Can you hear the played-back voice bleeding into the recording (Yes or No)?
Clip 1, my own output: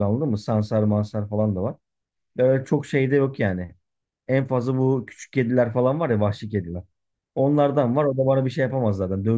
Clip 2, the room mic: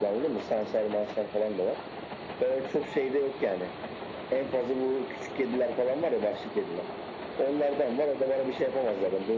Yes